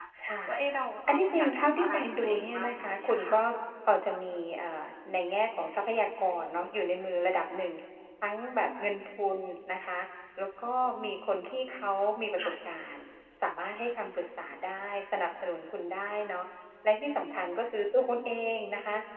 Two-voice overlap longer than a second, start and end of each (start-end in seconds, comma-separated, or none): 1.1-3.4